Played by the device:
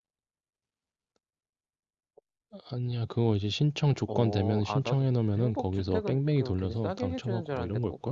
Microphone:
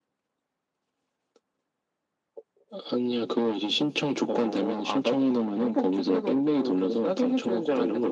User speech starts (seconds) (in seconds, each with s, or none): none